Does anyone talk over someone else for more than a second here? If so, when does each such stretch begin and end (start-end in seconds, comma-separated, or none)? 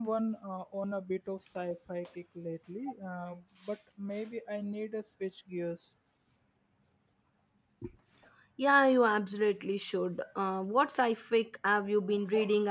none